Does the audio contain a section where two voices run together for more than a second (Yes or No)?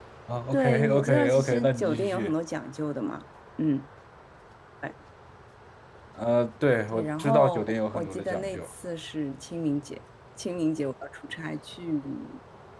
Yes